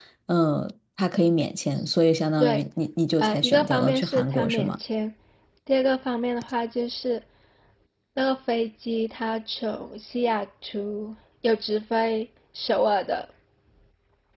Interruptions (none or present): present